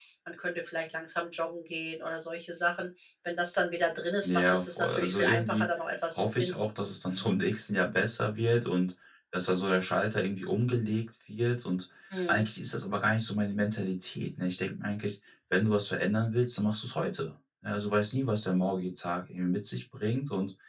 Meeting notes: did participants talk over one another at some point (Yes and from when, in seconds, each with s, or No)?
Yes, from 4.2 s